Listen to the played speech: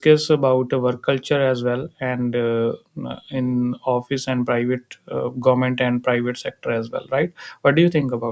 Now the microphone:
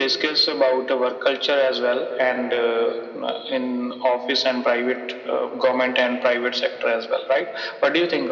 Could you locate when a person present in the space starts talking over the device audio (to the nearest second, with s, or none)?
none